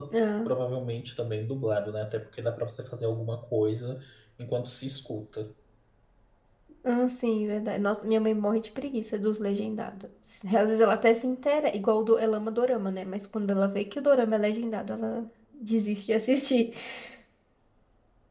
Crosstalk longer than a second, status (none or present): none